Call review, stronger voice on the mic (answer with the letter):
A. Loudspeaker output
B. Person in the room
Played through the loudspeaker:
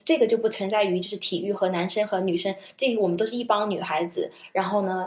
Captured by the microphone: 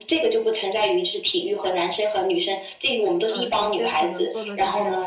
A